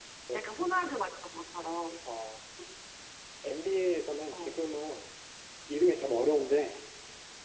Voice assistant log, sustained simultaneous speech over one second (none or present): none